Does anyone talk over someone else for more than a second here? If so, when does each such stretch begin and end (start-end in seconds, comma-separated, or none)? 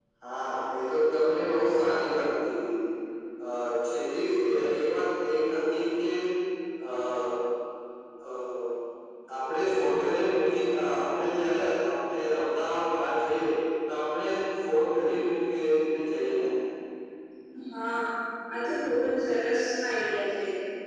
none